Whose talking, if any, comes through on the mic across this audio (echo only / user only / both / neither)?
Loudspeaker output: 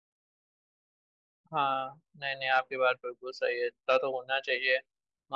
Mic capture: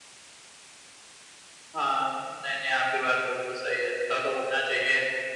echo only